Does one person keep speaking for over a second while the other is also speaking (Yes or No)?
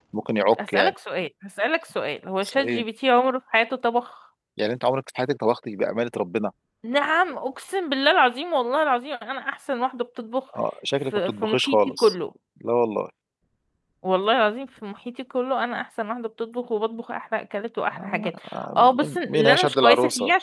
Yes